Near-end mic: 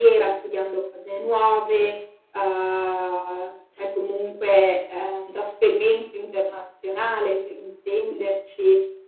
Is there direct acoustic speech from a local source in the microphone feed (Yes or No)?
No